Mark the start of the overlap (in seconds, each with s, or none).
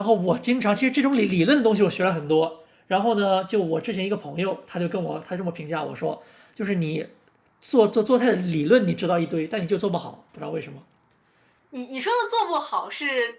none